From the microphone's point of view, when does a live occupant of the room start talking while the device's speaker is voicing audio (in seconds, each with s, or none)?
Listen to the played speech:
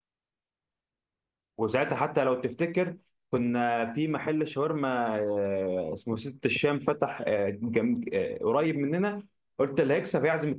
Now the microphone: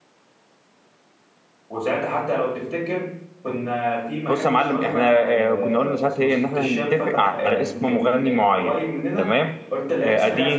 4.3 s